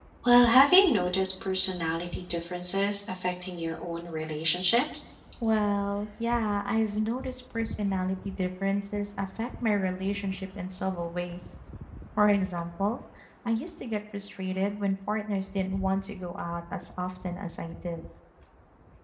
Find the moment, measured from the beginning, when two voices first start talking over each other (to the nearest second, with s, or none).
none